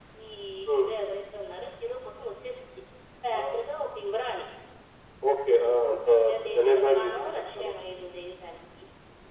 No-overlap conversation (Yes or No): No